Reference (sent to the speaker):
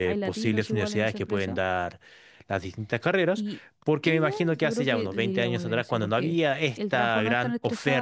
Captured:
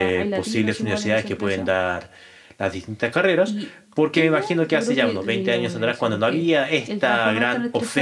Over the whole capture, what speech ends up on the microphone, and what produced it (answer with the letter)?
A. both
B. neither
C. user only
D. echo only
D